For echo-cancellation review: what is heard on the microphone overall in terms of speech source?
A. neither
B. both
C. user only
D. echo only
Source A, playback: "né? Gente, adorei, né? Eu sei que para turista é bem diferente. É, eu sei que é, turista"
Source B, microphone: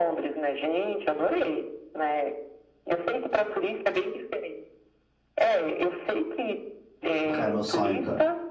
B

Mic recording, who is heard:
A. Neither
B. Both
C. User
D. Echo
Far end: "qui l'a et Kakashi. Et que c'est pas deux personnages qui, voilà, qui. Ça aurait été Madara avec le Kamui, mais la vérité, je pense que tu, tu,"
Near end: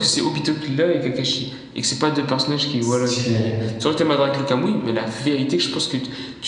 B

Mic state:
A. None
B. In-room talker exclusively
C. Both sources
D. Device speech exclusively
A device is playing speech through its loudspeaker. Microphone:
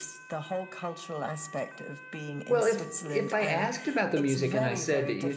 C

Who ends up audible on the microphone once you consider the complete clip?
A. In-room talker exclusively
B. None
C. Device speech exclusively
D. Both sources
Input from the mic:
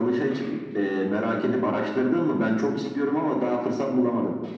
C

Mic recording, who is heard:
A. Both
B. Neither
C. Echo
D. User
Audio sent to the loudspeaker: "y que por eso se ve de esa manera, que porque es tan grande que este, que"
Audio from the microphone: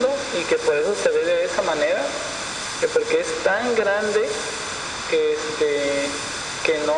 C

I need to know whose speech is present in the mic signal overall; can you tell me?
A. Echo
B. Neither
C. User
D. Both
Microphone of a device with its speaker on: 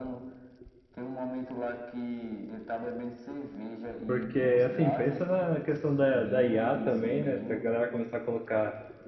D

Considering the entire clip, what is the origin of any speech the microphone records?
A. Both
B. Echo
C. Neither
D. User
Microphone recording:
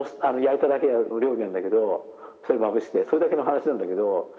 B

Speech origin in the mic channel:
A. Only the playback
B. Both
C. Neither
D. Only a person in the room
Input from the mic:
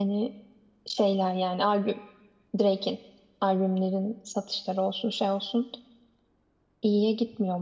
D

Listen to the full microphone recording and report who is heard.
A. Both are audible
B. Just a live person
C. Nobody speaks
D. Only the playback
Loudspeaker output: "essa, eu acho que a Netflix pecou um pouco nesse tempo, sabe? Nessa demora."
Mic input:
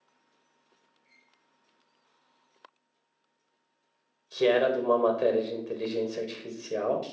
B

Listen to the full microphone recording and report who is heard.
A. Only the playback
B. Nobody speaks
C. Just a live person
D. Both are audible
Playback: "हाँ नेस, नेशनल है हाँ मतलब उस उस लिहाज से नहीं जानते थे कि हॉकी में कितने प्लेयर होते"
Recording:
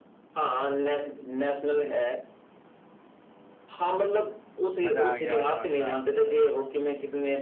D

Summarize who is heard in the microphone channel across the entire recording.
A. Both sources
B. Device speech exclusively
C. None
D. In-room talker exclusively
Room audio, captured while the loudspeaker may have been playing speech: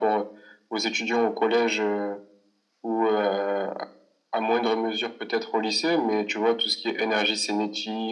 B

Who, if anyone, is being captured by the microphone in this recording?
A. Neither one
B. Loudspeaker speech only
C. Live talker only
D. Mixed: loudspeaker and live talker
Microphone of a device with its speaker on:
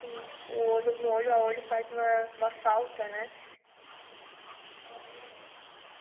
B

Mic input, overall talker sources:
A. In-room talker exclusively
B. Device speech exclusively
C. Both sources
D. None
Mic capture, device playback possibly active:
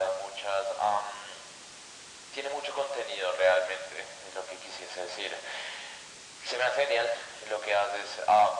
B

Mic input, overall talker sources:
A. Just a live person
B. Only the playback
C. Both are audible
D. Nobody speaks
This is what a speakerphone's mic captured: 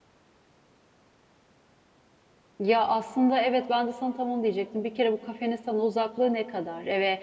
A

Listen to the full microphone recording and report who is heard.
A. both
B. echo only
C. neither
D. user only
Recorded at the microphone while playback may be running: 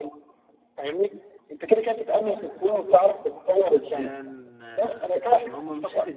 A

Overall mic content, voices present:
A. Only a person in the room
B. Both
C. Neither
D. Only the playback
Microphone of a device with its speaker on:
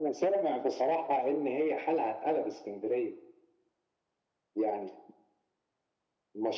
D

